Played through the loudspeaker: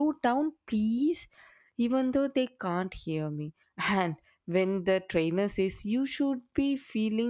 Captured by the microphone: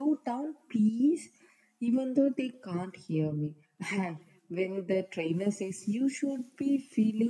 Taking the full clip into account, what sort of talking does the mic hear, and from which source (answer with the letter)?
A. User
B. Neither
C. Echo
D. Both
C